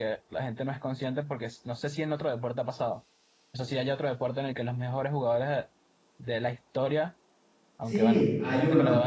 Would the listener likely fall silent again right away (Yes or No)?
No